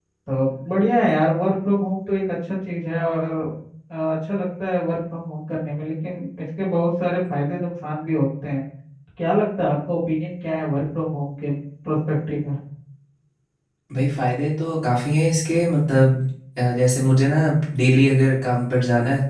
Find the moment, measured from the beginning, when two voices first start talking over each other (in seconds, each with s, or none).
none